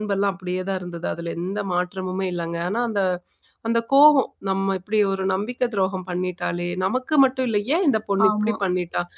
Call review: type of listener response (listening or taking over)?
listening